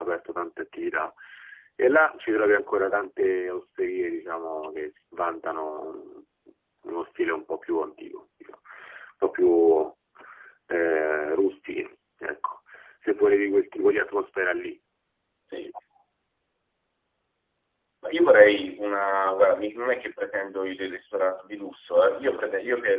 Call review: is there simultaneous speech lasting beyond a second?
No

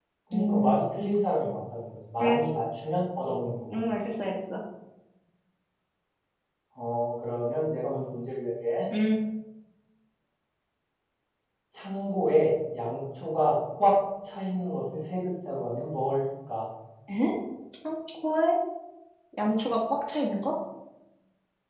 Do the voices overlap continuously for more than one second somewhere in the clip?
No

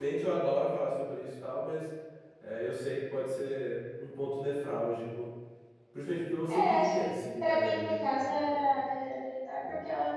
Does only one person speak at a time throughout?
No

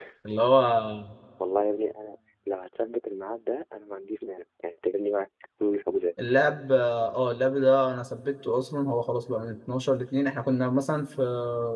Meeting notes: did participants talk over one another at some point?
No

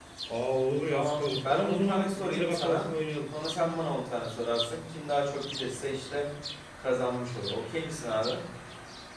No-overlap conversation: No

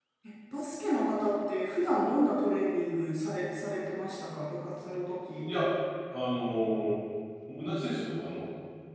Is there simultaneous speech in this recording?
No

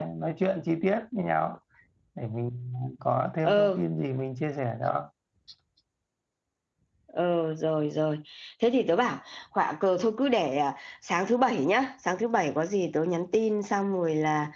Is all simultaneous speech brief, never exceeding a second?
Yes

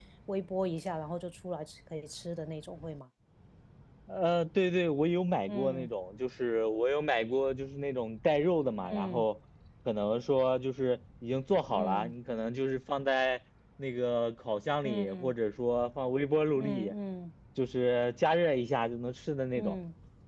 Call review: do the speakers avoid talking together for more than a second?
Yes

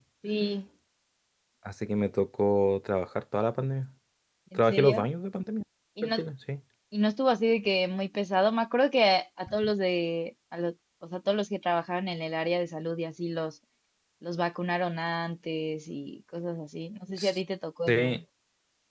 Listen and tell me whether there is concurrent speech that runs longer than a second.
No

